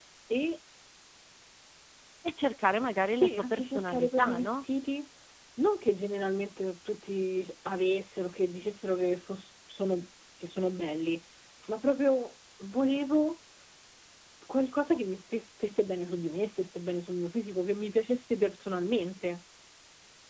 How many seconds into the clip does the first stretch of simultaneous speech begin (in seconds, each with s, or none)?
3.1 s